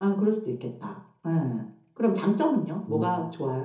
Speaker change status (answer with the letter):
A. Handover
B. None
B